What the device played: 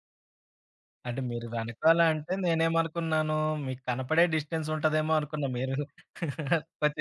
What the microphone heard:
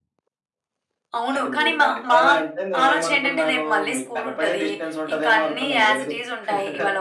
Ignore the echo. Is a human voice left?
Yes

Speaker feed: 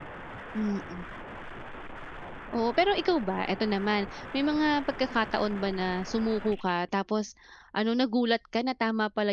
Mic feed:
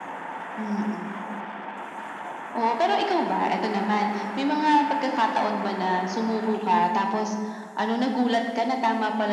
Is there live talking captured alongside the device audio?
No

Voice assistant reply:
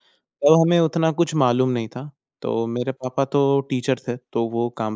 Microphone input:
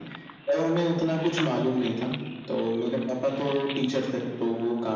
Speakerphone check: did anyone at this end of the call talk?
No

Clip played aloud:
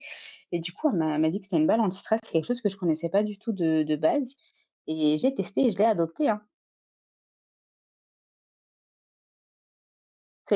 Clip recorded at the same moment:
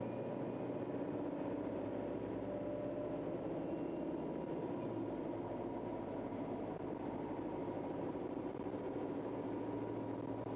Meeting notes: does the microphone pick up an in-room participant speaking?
No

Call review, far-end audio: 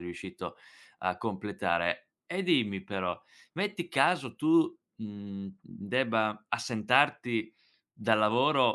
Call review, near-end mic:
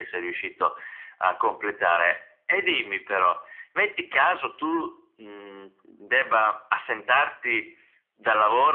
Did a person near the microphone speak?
No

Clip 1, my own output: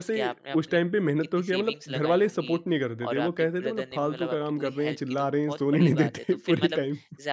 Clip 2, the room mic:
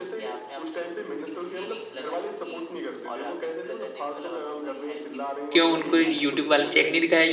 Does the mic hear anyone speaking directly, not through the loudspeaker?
Yes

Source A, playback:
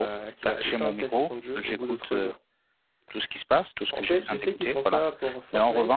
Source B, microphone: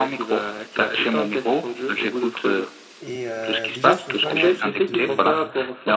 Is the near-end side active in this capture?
Yes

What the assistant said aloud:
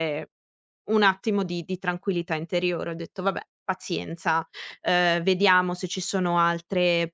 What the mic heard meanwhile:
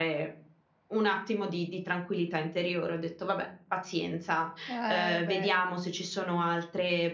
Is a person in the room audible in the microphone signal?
Yes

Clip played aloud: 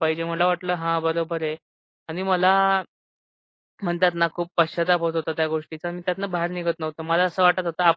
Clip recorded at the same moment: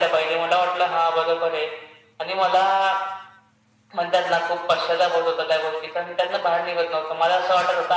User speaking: No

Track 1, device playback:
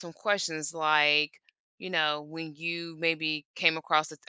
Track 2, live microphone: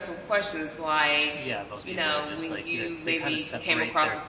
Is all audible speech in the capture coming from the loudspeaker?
No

